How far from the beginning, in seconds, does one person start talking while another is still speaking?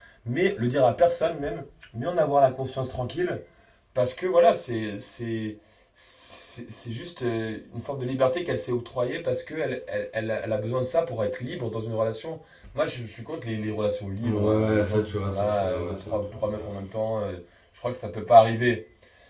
14 s

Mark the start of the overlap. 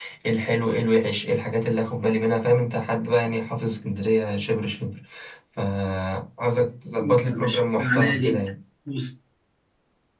7 s

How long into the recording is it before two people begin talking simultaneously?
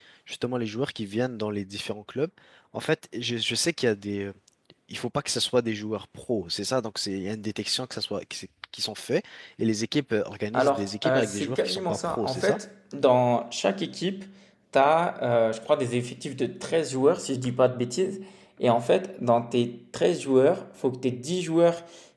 11 s

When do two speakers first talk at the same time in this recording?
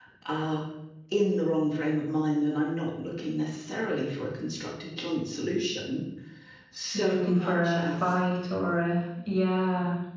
7 s

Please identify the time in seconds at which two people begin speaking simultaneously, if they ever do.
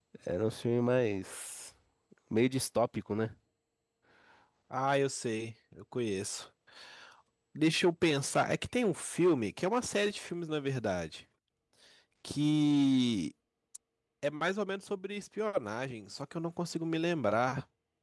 none

